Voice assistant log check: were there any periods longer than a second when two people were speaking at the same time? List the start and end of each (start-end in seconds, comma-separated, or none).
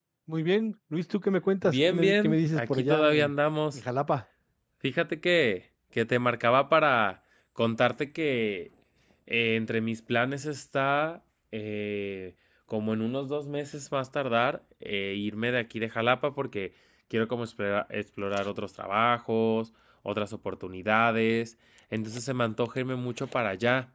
1.6-3.3